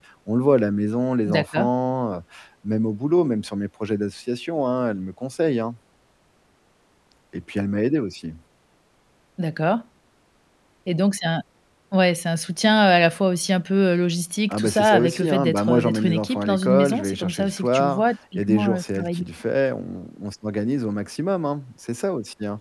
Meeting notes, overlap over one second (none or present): present